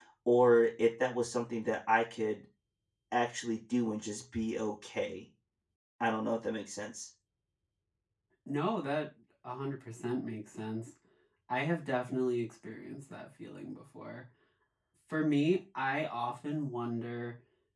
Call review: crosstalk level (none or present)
none